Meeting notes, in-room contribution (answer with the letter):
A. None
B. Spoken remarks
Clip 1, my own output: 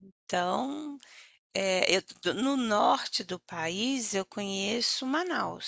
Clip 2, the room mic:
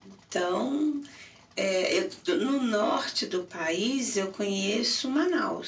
A